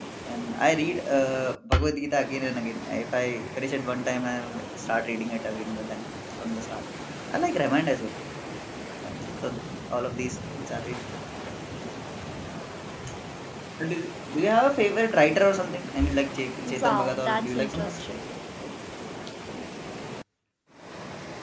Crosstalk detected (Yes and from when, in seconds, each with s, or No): Yes, from 16.6 s